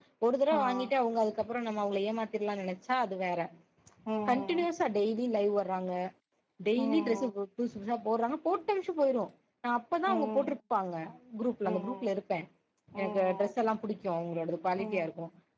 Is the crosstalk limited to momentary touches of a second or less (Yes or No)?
Yes